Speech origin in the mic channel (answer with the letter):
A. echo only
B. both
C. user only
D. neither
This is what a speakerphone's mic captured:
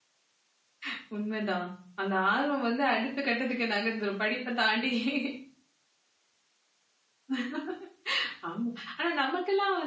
C